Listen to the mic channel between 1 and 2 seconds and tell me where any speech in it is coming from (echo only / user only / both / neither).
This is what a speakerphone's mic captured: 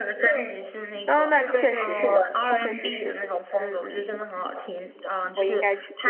both